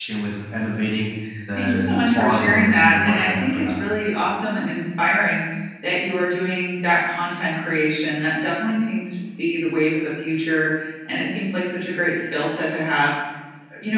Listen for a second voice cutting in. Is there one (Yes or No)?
Yes